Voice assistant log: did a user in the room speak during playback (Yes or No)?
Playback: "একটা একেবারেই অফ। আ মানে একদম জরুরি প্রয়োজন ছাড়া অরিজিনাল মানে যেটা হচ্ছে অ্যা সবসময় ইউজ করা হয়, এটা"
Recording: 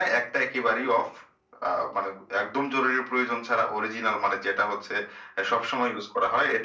No